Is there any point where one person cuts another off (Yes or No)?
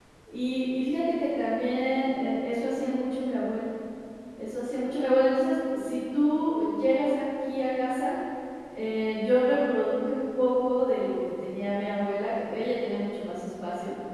No